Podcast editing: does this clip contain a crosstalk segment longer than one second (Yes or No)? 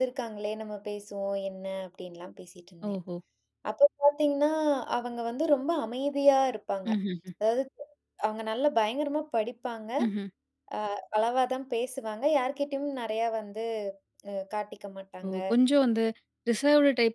No